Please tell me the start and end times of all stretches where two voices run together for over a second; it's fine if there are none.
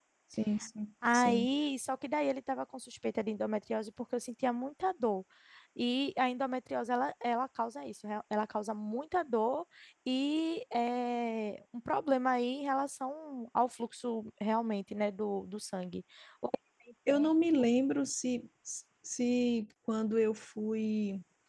none

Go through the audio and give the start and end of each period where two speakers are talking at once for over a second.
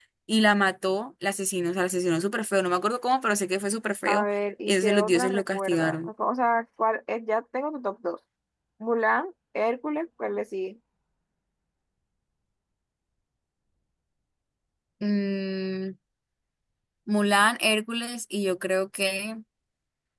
4.7-6.1

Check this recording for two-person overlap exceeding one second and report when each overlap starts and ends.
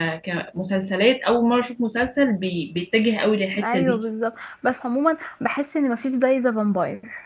none

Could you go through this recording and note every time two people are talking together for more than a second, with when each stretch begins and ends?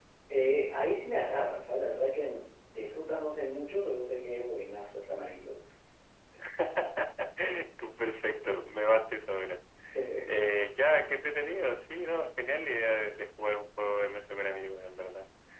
none

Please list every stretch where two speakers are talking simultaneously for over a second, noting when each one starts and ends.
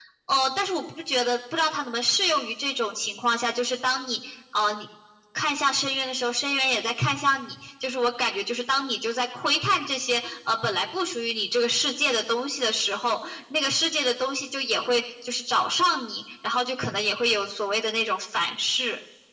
none

